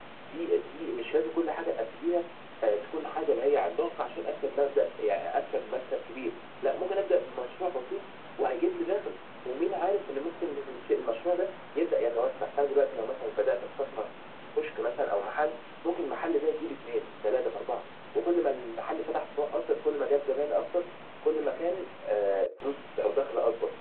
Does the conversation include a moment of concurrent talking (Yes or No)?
No